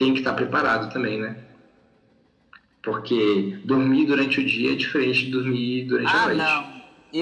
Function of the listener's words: taking over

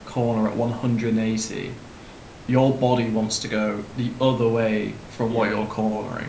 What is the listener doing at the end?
listening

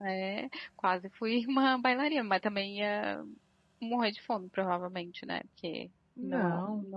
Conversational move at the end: listening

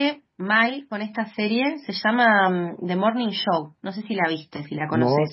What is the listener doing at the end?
taking over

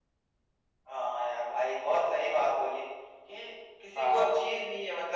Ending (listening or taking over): listening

